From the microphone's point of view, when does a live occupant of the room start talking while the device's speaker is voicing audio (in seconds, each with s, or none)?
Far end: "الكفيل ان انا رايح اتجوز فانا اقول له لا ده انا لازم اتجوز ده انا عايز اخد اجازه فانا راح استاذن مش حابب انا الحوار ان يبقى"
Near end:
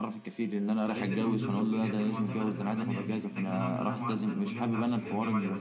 0.8 s